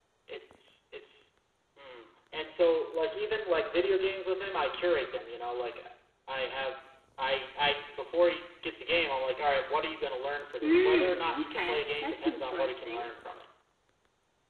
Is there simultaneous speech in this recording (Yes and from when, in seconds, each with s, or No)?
Yes, from 10.6 s